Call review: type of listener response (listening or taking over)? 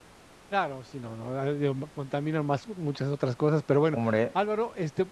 listening